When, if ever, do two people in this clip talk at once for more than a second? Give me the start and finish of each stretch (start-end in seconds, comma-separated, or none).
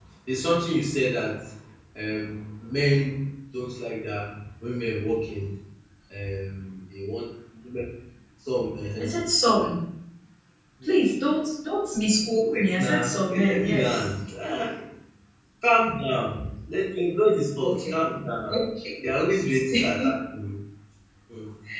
12.6-14.1